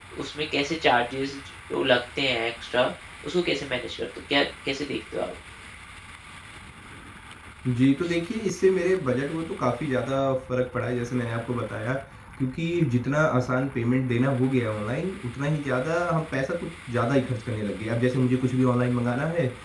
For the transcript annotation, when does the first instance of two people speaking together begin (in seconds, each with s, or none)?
none